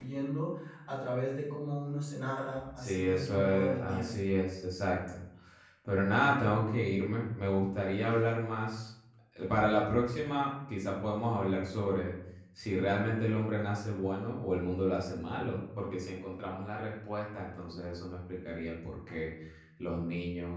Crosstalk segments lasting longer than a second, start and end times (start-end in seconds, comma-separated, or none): 2.8-4.2